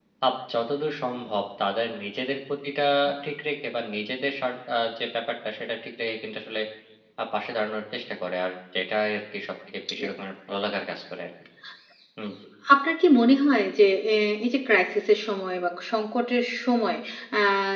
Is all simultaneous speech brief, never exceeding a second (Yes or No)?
Yes